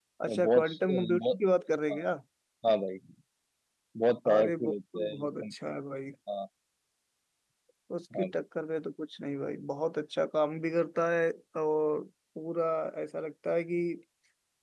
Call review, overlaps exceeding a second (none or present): present